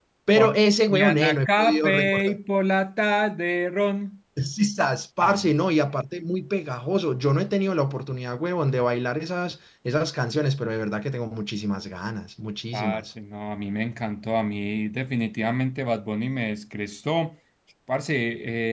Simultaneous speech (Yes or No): Yes